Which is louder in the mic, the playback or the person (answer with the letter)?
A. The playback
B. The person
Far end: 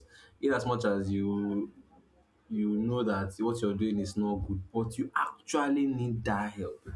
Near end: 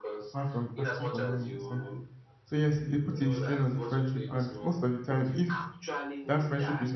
B